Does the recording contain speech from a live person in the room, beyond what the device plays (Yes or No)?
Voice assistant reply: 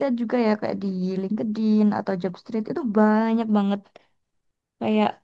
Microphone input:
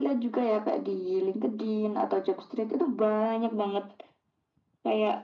No